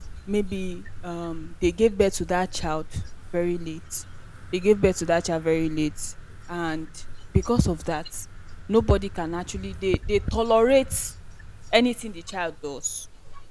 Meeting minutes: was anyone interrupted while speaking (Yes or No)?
No